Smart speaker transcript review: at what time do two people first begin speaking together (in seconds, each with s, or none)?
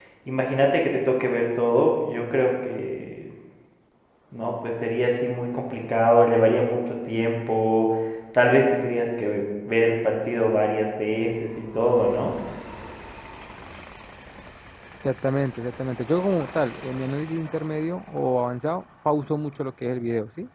none